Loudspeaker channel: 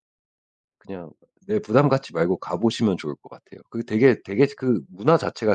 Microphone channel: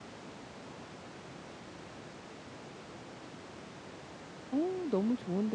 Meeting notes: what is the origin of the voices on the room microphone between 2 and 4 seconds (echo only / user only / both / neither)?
neither